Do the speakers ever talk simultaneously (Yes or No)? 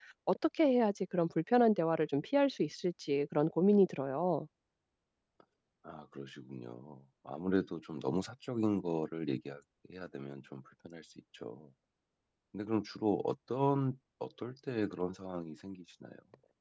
No